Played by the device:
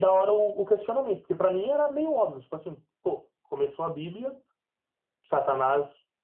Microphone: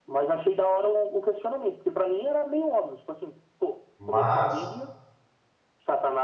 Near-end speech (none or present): present